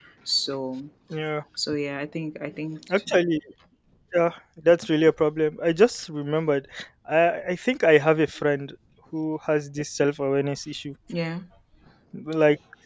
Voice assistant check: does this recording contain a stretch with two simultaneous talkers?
No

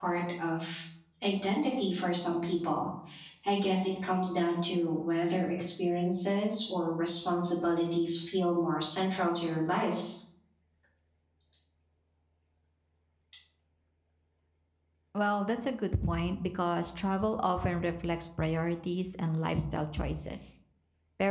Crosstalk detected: No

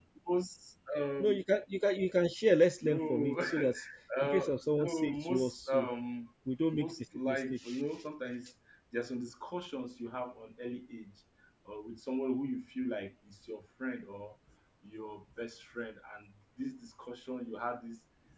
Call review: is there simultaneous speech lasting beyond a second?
Yes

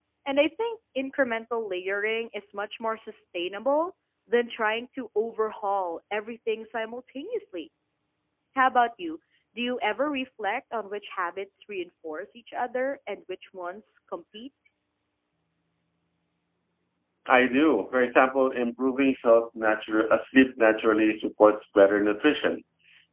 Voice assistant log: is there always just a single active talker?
Yes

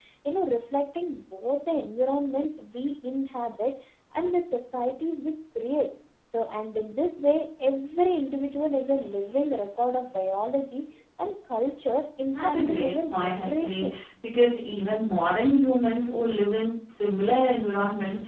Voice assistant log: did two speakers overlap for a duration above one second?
Yes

